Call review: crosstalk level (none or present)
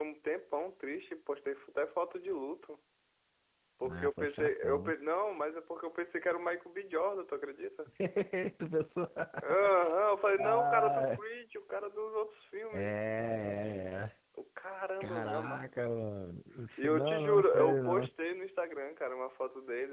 present